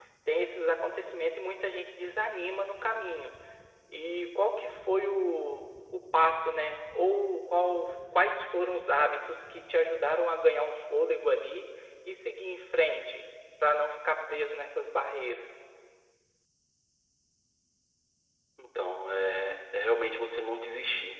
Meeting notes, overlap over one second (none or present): none